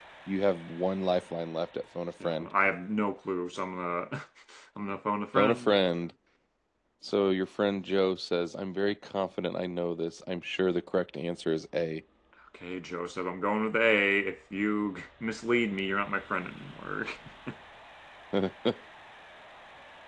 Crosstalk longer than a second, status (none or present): none